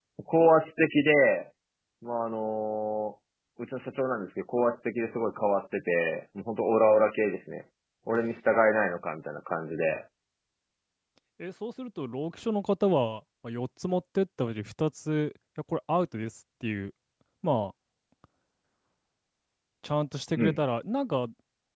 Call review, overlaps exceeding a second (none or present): none